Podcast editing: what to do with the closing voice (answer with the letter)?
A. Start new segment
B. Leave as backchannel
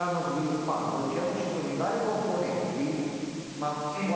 B